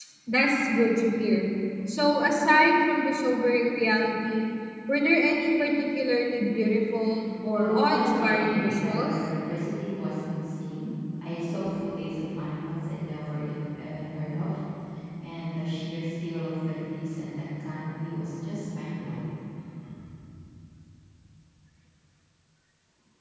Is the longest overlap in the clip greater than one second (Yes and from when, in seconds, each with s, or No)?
Yes, from 7.6 s